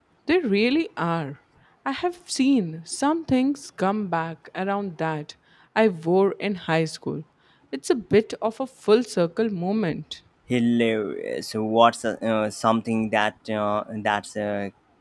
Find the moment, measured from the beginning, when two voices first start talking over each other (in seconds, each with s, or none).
none